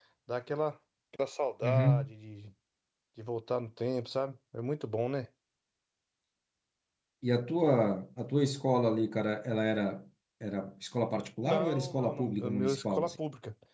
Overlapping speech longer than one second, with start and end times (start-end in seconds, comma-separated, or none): 11.4-13.2